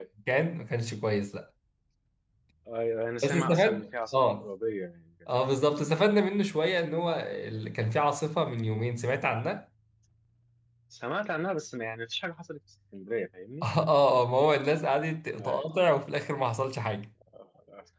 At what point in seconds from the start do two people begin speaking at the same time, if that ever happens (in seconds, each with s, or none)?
3.2 s